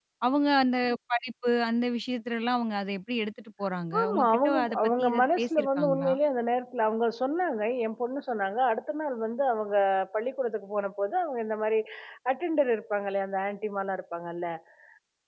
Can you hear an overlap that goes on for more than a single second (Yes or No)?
Yes